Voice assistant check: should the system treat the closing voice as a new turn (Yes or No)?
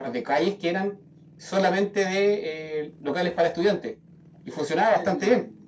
Yes